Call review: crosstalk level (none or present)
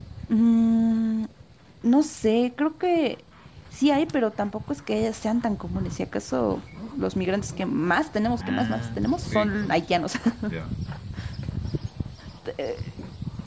present